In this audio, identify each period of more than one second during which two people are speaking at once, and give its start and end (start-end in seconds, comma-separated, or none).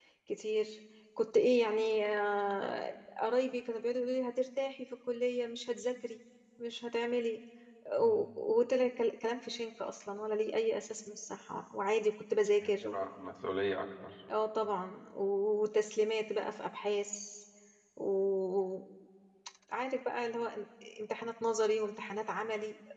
none